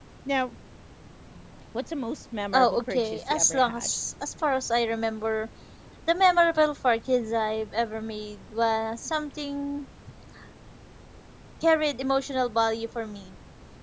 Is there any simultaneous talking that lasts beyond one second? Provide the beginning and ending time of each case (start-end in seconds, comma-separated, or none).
2.5-3.9